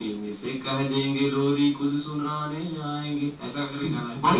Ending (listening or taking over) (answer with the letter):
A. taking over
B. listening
A